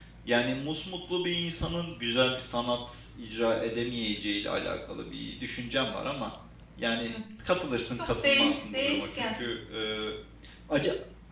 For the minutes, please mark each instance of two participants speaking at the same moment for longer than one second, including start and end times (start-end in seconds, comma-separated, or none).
7.9-9.3